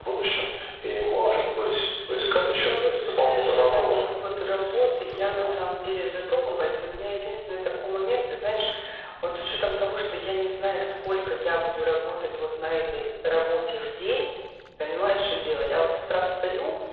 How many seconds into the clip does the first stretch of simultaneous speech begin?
2.6 s

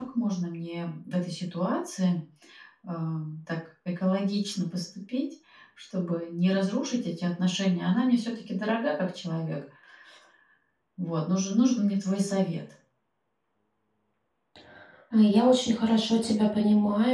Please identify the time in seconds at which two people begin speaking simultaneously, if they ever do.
none

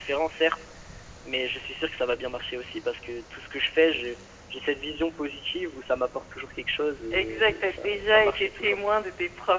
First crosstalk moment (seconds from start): 7.1 s

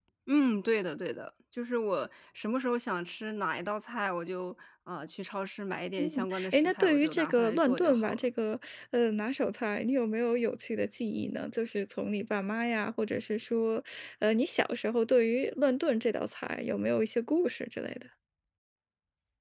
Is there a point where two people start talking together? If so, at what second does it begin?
6.0 s

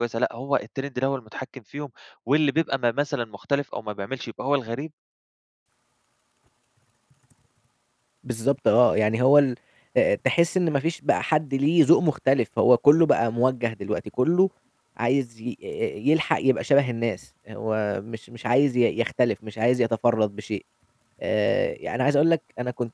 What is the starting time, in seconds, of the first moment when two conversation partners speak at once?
none

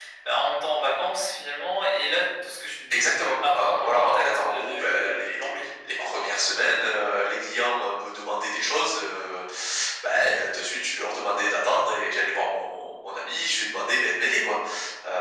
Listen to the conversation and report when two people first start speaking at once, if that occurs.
2.9 s

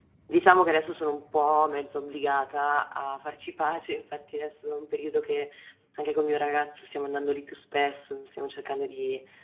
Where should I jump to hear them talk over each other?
none

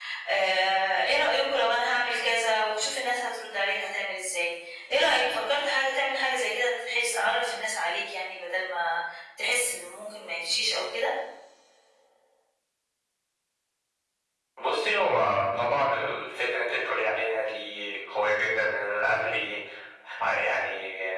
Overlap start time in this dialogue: none

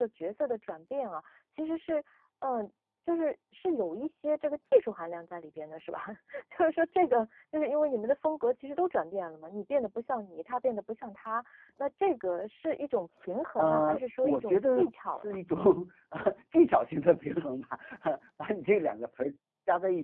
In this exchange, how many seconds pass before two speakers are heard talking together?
13.6 s

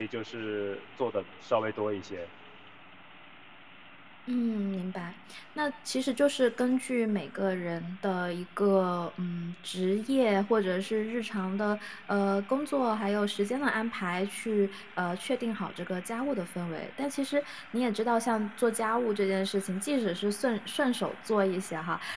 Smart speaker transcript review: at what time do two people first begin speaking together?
none

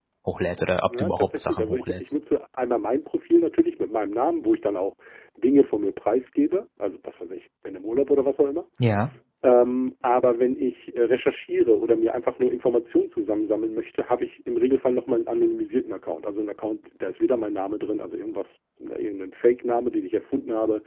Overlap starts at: 0.9 s

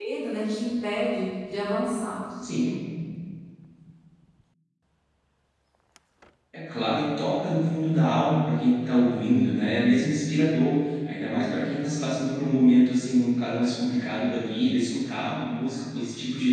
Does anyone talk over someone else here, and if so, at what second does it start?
none

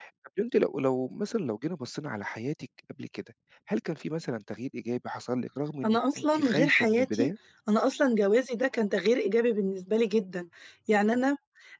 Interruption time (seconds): 5.8 s

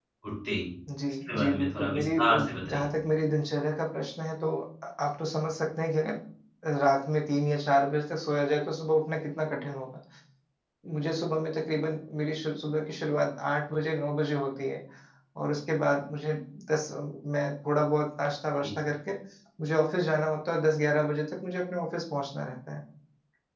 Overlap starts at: 1.2 s

